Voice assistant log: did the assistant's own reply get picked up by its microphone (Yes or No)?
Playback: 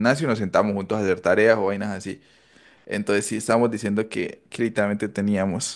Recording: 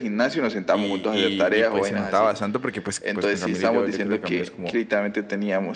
Yes